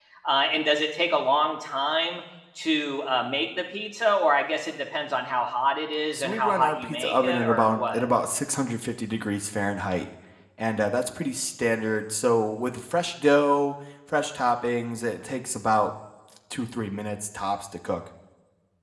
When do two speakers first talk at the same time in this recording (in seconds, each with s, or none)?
6.1 s